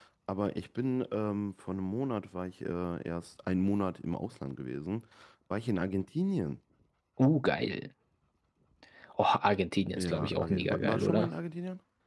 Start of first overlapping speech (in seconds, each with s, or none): 10.0 s